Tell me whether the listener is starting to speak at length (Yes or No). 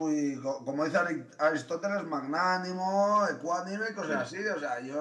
No